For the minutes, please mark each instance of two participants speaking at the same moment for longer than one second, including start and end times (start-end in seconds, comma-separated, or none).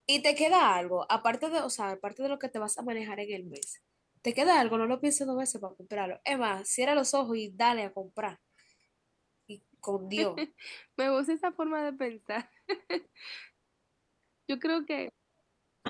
none